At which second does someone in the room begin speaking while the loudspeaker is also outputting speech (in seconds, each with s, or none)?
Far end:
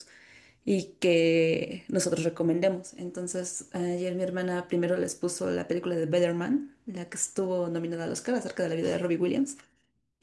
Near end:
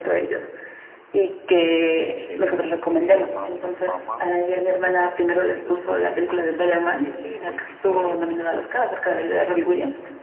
2.2 s